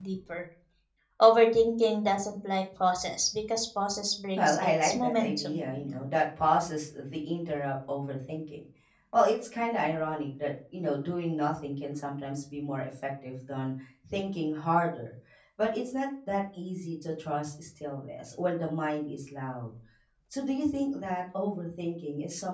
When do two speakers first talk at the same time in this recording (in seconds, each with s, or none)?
4.4 s